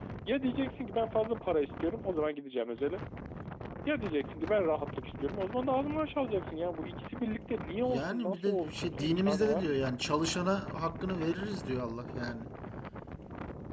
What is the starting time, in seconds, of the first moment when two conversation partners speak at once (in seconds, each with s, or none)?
7.9 s